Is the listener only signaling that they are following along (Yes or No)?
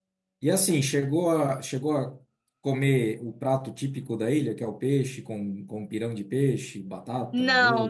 No